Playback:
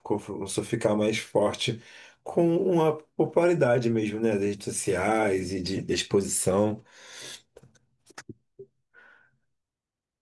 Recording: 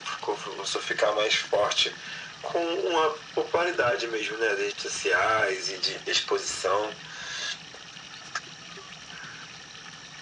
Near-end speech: none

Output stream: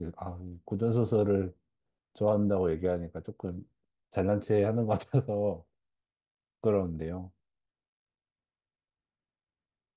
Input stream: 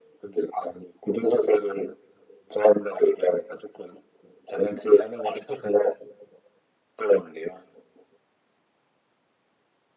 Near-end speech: none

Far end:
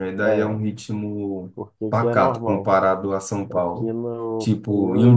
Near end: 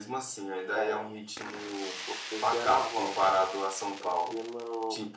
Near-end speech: none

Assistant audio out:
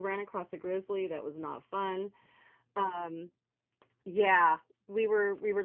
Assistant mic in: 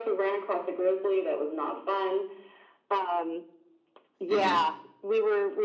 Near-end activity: present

